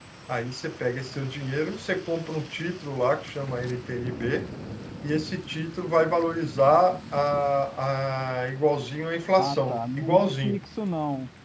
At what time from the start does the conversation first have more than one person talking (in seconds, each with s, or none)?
9.4 s